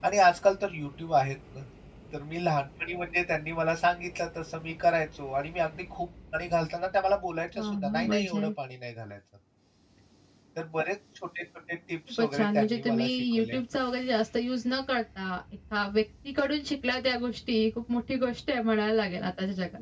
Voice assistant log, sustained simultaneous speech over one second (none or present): present